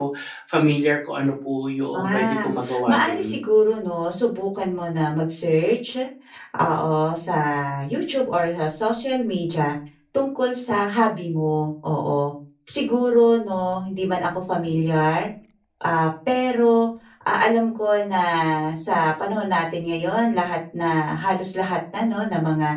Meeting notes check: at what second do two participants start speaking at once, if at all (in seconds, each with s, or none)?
1.9 s